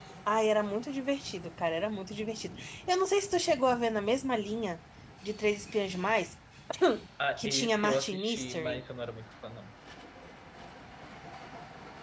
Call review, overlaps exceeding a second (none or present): present